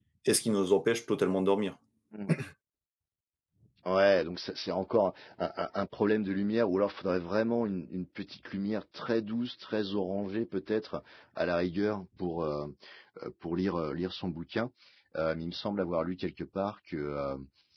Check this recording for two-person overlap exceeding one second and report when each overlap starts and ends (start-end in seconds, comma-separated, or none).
none